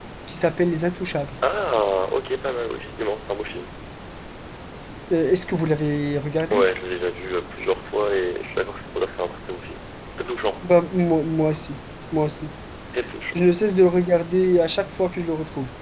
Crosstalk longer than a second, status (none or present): none